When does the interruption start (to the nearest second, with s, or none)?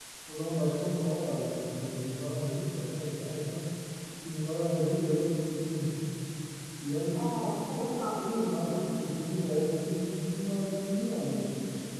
7 s